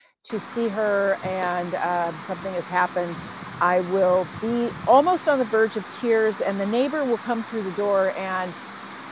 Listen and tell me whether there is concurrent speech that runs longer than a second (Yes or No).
No